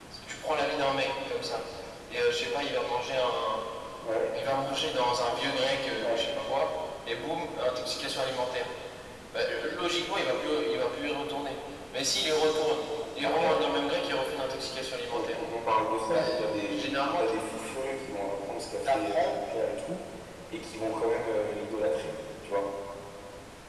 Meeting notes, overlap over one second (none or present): present